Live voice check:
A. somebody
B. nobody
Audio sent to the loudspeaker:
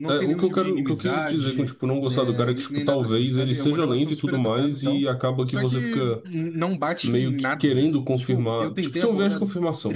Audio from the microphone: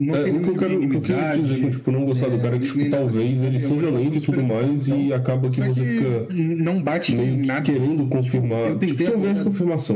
B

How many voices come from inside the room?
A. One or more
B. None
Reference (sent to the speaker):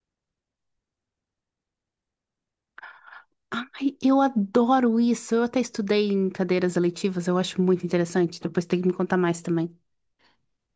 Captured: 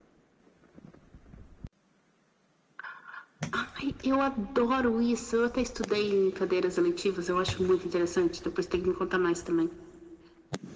B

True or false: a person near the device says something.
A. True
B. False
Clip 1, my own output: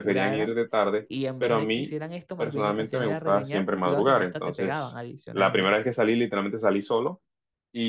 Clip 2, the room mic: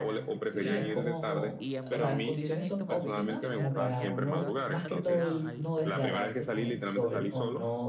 A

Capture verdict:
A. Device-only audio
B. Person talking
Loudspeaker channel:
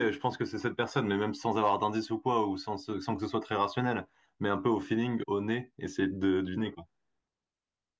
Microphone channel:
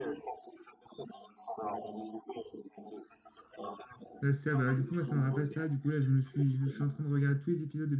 B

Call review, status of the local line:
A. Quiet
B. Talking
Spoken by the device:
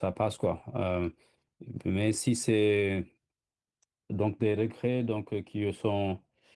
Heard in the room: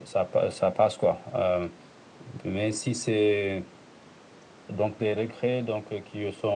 A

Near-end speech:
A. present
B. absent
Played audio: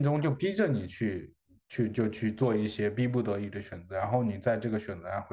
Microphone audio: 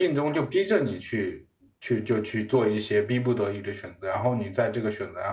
B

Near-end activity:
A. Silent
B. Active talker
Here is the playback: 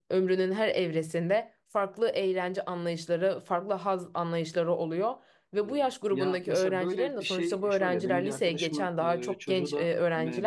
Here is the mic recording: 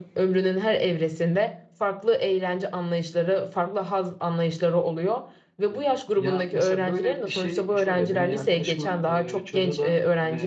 A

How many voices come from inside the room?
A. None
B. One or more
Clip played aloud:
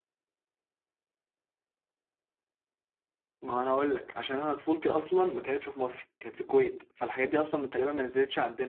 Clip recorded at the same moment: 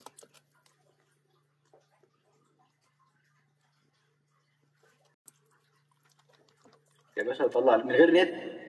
B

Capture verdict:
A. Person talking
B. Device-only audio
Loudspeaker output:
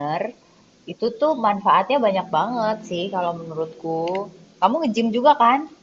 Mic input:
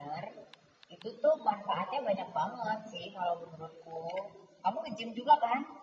B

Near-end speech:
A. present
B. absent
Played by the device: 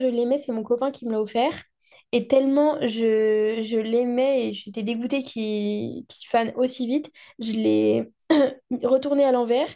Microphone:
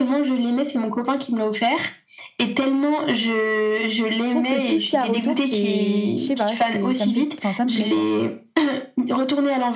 A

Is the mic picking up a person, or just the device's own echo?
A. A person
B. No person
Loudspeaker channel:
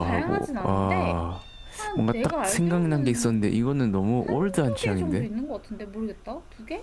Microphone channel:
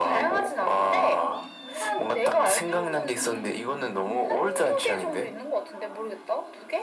A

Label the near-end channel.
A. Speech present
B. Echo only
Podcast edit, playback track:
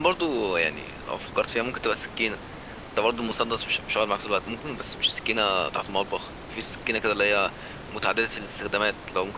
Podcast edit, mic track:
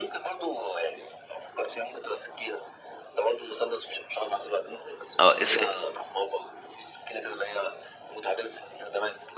A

